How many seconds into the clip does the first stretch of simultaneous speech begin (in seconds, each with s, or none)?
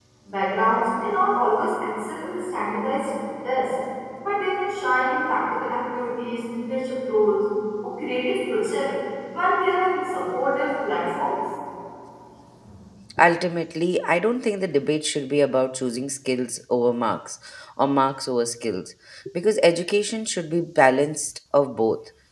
none